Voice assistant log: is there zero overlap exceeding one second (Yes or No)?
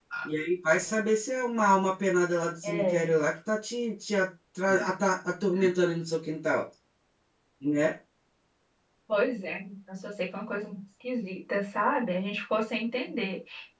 Yes